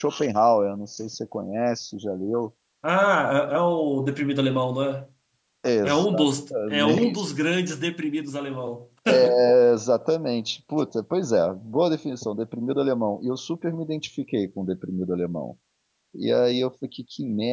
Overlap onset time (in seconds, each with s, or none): 5.8 s